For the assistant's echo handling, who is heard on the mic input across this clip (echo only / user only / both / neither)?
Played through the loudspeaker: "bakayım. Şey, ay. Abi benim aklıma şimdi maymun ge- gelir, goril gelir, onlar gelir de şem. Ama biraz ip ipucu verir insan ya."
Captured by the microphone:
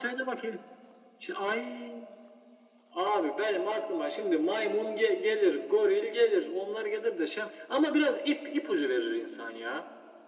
echo only